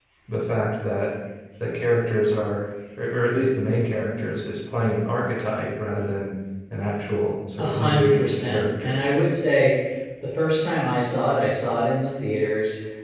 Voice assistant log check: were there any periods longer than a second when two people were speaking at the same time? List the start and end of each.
7.6-9.0

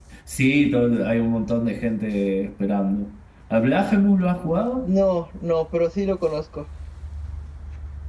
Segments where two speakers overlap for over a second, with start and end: none

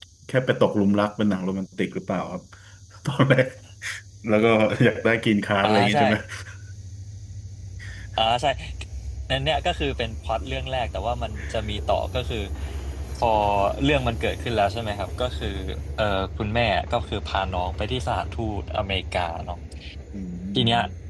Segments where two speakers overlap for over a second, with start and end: none

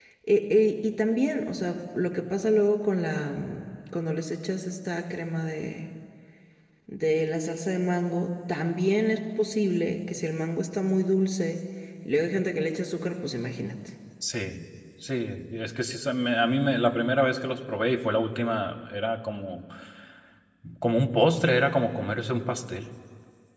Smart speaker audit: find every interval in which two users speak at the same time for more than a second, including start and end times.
none

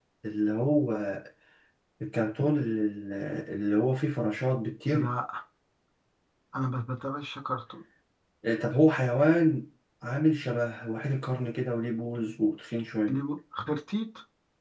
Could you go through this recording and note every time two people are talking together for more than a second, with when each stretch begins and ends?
none

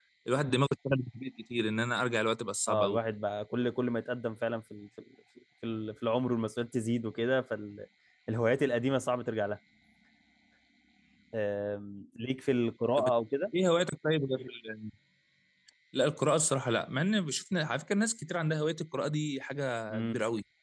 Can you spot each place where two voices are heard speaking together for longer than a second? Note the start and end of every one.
none

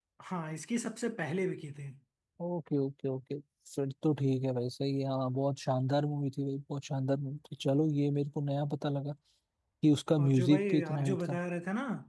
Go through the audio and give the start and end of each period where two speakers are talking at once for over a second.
10.2-11.4

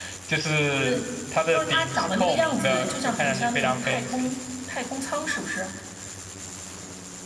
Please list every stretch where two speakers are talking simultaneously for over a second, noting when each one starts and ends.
1.5-4.3

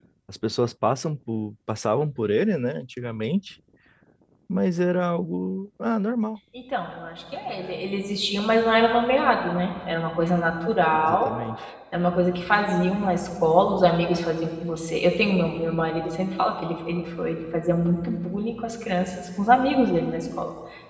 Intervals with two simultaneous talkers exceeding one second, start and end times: none

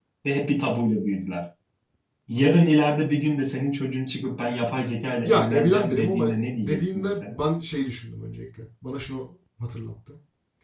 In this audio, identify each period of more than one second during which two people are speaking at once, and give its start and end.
5.2-7.4

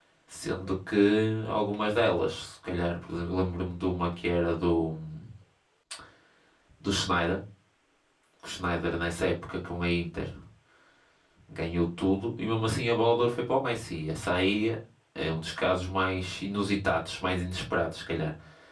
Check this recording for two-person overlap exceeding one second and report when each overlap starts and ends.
none

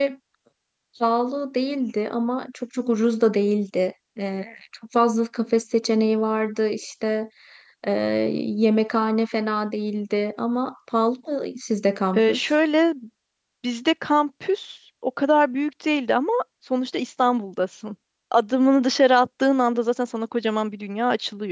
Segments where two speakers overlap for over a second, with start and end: none

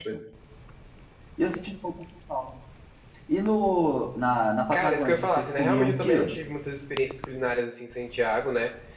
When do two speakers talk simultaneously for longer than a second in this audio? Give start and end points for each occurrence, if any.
4.7-6.3

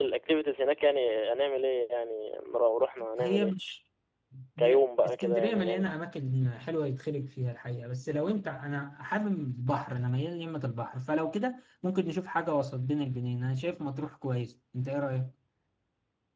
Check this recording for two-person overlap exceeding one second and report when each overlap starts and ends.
4.6-5.8

